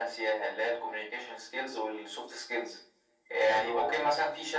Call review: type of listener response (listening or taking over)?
listening